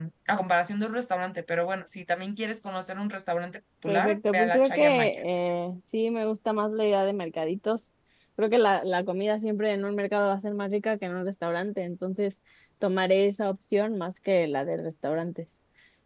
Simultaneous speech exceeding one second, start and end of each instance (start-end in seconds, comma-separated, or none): 3.9-5.1